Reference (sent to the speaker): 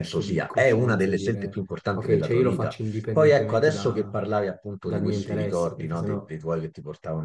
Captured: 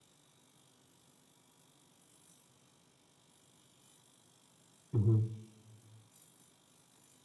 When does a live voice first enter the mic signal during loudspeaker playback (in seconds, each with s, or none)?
4.9 s